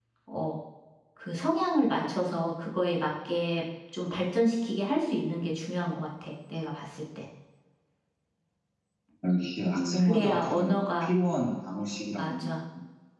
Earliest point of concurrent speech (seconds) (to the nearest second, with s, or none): 10 s